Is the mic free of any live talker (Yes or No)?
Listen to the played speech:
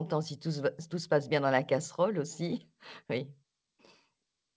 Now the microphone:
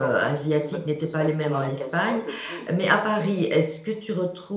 No